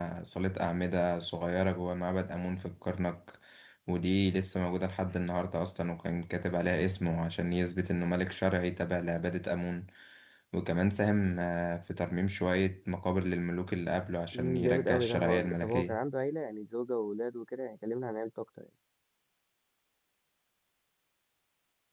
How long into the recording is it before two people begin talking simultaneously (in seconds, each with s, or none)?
14.3 s